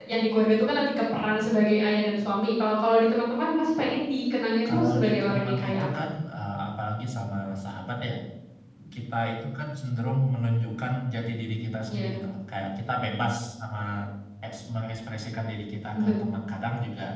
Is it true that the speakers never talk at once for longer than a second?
No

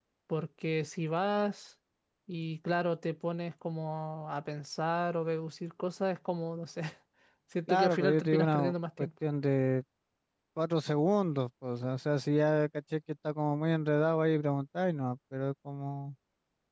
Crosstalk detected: Yes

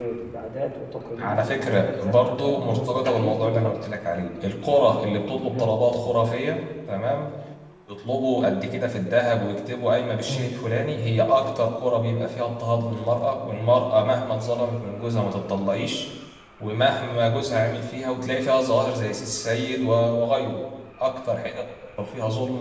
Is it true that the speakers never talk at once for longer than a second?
No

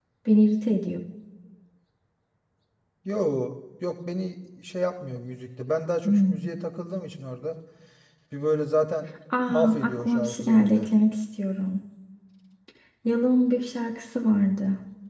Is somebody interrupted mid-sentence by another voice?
Yes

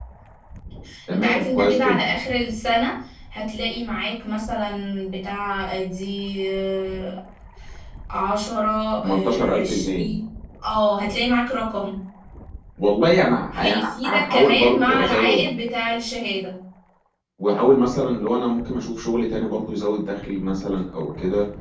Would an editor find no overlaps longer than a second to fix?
No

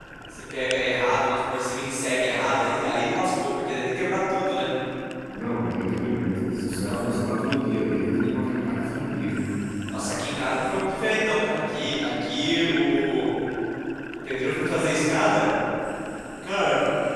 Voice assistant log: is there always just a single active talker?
Yes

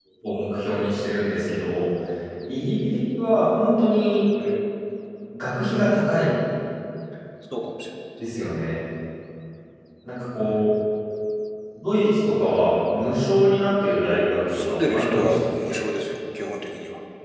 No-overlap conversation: No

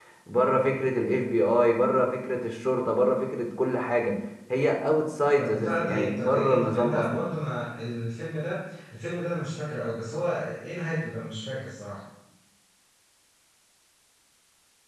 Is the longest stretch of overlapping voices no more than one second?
No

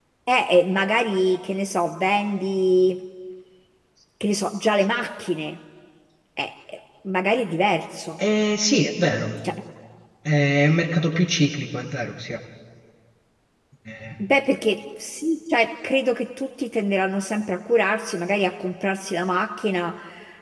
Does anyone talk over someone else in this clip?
No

